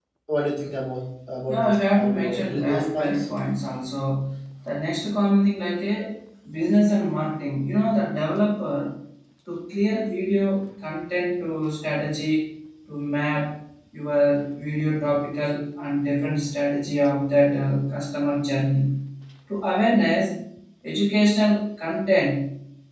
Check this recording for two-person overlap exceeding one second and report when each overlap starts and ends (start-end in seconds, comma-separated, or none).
1.5-3.2